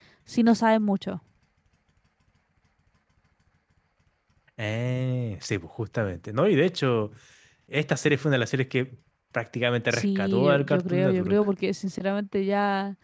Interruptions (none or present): present